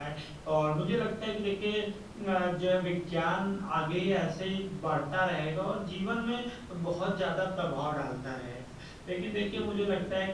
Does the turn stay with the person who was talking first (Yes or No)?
Yes